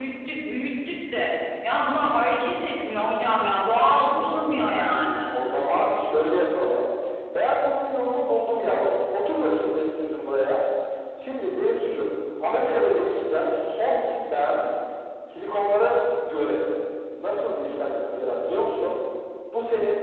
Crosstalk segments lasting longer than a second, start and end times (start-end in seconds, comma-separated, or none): 3.5-5.2